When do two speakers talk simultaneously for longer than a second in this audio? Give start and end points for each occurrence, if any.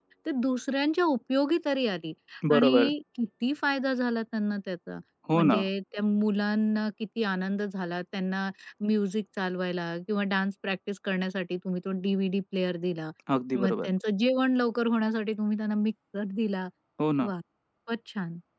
none

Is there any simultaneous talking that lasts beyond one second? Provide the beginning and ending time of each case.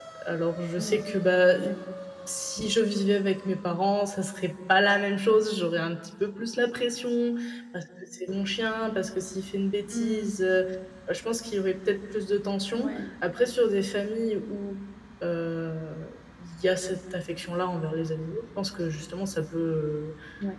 none

